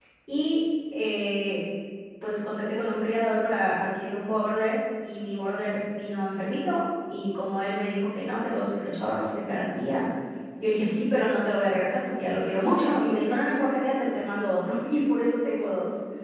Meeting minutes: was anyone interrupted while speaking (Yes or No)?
No